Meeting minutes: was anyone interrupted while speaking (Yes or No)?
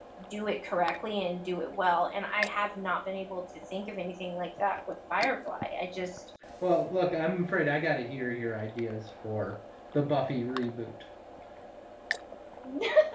No